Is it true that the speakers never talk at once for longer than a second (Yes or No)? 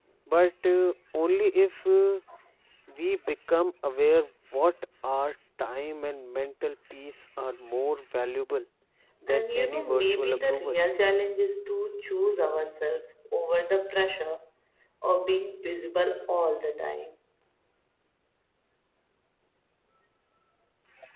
No